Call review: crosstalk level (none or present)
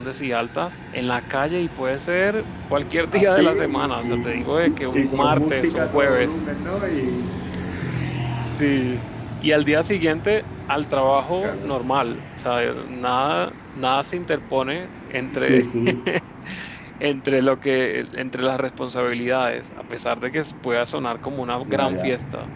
present